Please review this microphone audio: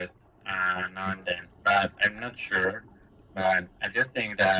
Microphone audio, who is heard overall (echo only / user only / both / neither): echo only